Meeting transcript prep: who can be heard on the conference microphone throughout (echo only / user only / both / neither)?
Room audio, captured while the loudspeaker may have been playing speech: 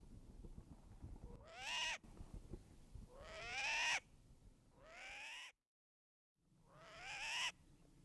neither